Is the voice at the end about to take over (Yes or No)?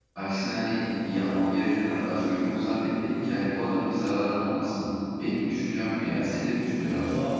Yes